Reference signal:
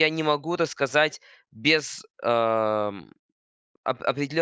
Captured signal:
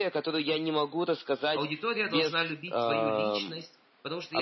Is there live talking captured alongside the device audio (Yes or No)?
Yes